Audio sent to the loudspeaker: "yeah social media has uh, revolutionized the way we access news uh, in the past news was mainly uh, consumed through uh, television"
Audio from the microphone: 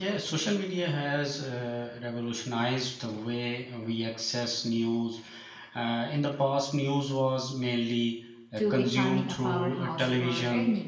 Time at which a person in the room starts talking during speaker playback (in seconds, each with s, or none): 8.5 s